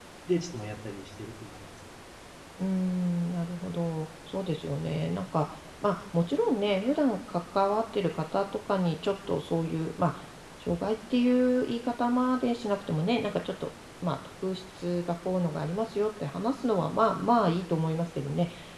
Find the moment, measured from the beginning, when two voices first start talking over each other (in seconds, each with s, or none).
none